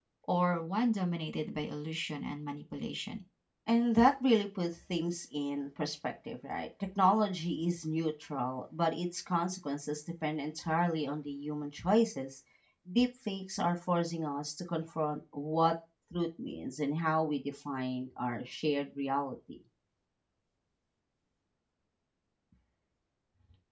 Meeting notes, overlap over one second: none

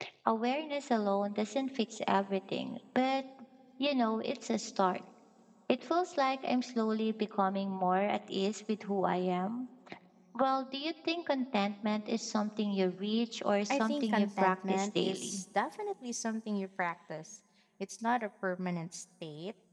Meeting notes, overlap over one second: present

